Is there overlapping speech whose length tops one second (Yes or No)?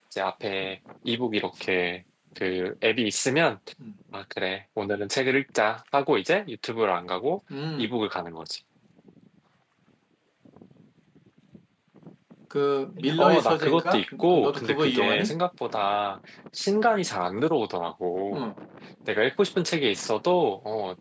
Yes